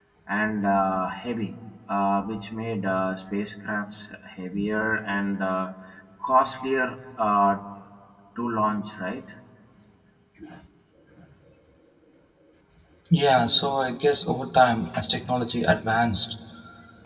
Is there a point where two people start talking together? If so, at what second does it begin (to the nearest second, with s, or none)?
none